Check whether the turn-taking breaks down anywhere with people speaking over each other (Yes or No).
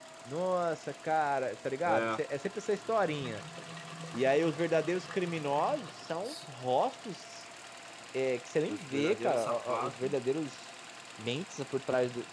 Yes